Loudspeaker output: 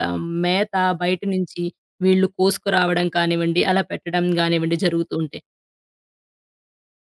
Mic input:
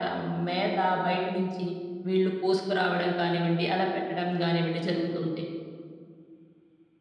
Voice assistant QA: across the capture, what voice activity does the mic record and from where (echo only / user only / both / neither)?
echo only